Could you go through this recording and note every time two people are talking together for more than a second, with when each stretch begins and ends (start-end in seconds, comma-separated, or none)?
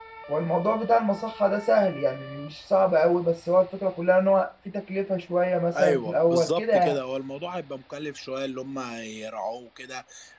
5.8-7.0